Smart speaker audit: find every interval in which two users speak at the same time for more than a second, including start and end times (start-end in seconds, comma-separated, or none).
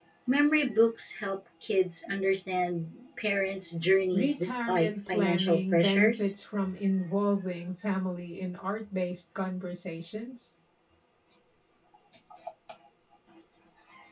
4.1-6.3